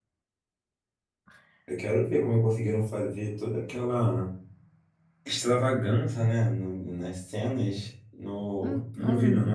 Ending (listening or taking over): listening